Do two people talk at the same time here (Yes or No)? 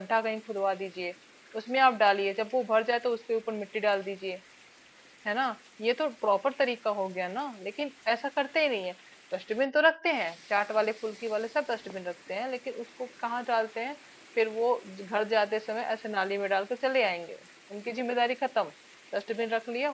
No